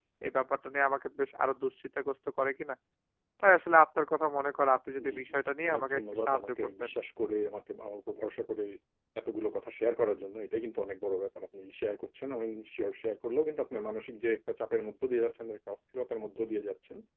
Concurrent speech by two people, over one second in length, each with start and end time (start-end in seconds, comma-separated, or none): 5.7-6.9